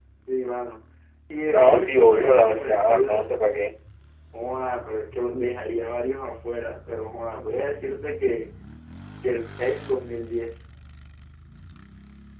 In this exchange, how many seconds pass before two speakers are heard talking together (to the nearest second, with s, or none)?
2 s